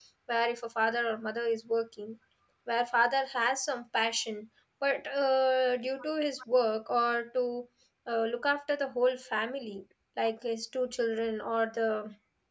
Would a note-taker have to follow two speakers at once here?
No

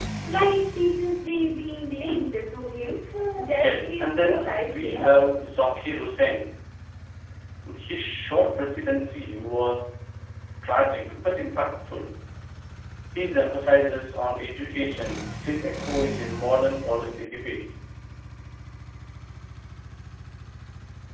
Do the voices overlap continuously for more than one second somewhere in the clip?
Yes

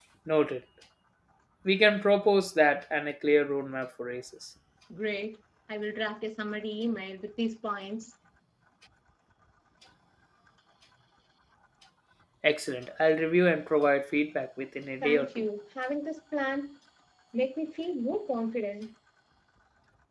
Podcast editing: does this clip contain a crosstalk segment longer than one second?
No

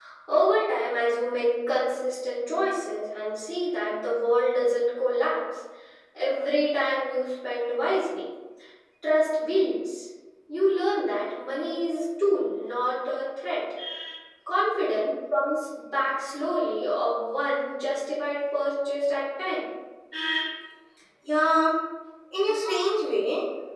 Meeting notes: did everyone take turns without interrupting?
Yes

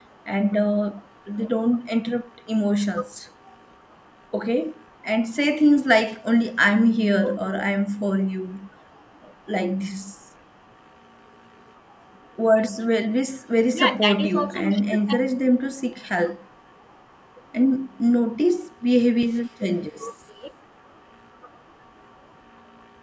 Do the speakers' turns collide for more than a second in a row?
Yes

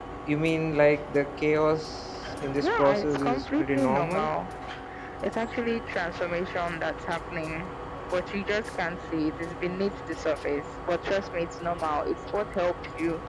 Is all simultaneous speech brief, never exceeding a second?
No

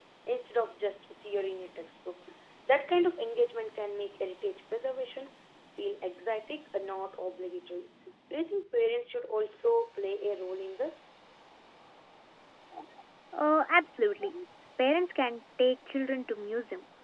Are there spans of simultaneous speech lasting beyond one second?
No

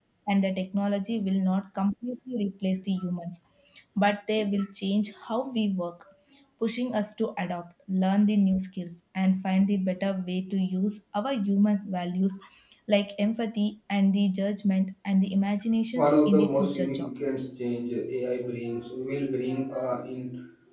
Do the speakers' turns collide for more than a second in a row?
Yes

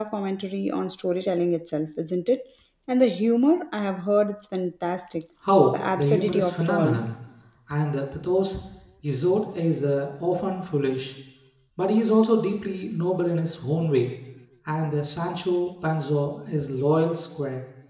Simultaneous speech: Yes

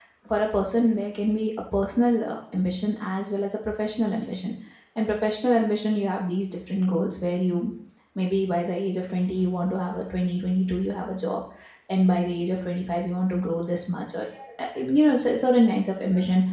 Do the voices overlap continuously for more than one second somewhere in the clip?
No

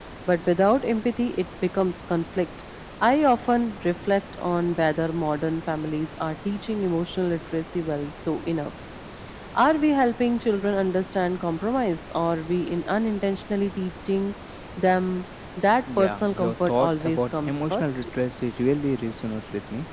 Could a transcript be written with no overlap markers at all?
No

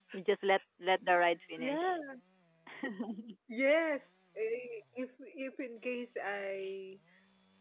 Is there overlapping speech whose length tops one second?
No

